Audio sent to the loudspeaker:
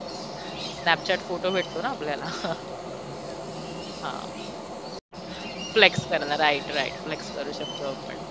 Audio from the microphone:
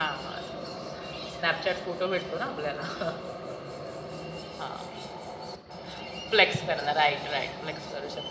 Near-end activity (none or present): none